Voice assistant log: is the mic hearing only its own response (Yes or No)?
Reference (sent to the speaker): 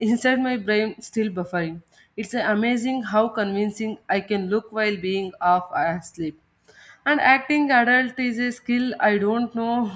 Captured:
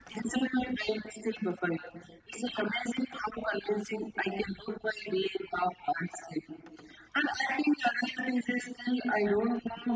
Yes